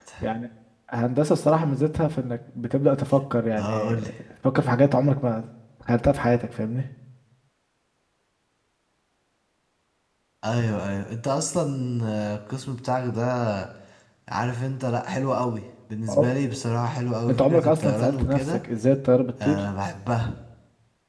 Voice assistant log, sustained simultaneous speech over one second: present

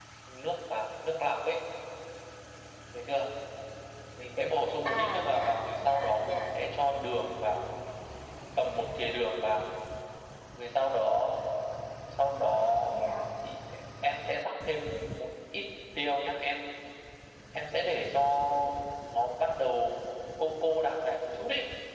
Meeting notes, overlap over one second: present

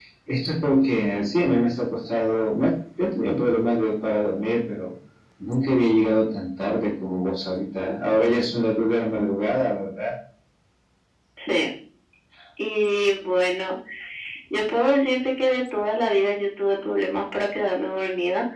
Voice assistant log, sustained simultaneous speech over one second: none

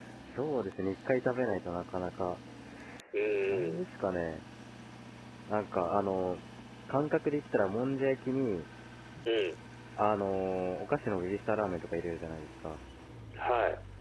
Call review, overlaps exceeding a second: none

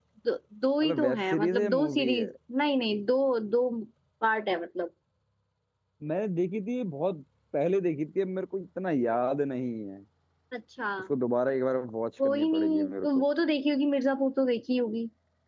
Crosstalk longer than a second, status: present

